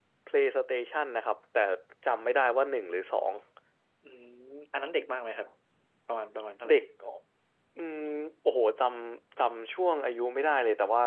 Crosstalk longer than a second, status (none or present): none